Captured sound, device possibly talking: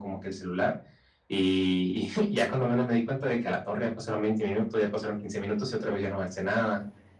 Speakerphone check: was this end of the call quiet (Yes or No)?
Yes